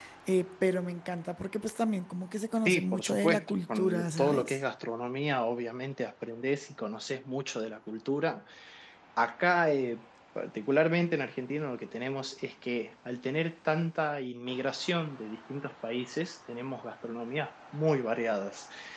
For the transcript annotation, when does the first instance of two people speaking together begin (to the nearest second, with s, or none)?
3 s